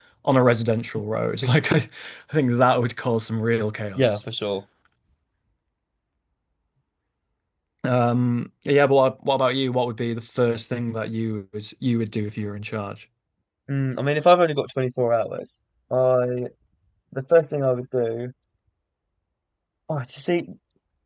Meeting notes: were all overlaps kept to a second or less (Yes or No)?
Yes